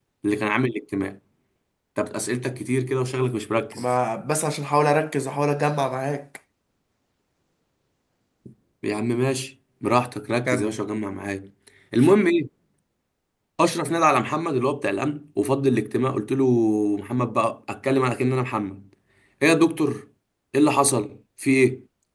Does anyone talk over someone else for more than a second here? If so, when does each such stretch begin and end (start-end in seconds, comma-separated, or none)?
none